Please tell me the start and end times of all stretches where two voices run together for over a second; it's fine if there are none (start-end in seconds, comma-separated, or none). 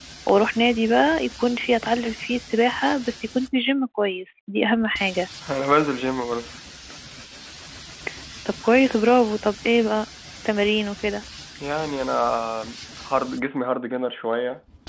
none